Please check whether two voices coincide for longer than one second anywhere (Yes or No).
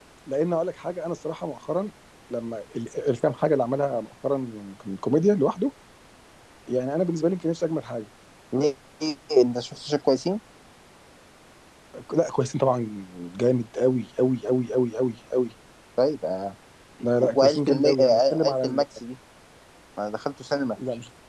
Yes